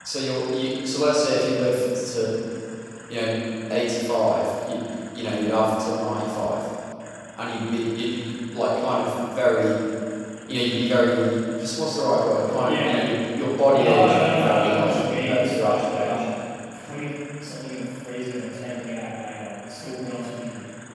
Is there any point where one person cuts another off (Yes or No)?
Yes